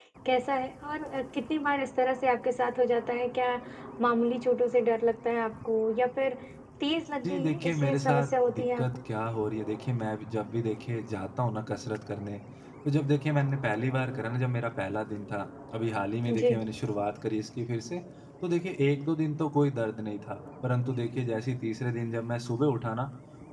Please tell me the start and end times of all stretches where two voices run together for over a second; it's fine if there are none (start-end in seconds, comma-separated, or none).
7.2-9.0